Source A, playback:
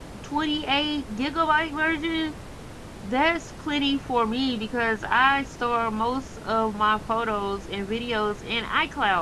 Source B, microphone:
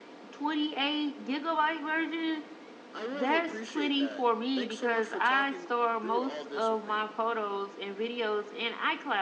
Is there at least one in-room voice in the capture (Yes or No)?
Yes